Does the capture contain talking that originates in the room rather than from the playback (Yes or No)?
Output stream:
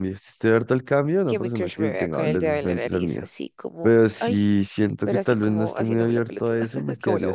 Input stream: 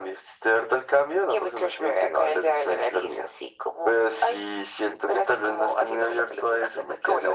No